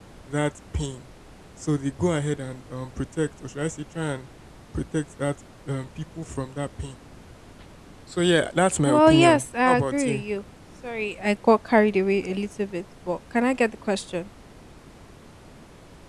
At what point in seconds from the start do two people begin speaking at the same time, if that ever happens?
8.8 s

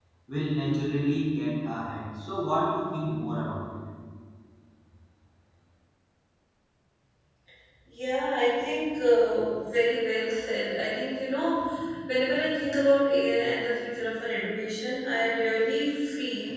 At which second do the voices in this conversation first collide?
none

